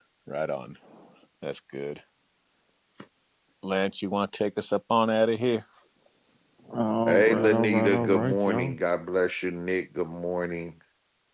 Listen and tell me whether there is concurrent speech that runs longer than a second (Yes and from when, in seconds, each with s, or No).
Yes, from 7.1 s